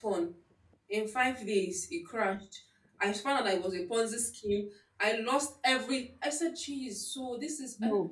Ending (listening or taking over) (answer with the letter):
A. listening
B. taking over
A